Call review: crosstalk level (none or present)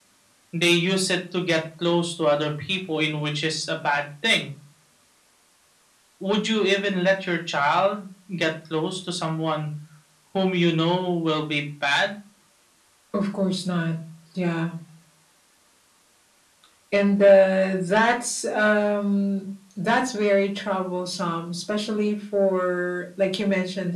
none